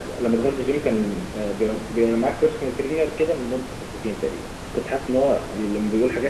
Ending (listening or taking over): listening